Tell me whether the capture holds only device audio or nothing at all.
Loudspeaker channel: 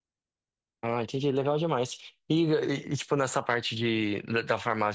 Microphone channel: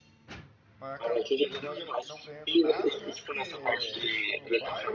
No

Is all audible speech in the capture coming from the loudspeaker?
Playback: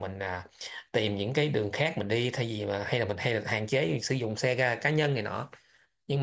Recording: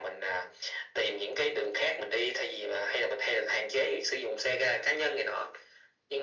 Yes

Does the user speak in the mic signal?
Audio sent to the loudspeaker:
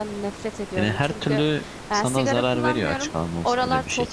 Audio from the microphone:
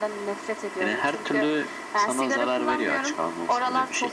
No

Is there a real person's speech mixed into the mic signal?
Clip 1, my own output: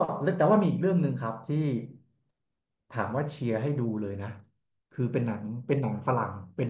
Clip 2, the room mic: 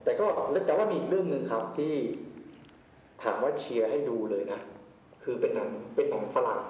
No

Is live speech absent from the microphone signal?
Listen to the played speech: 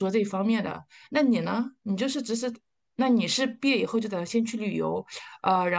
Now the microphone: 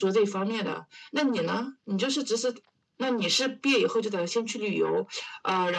Yes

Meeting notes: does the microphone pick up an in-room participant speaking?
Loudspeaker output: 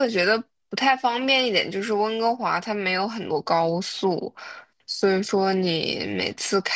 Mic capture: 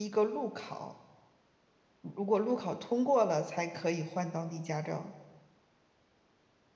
Yes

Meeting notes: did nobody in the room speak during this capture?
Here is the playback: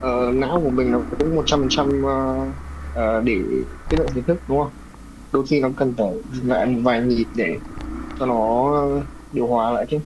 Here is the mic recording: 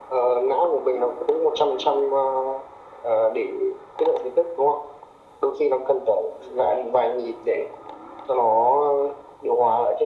Yes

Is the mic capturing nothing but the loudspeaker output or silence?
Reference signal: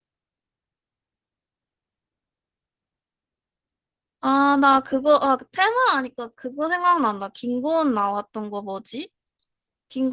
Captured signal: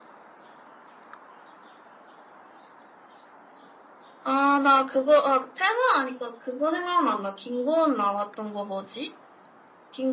Yes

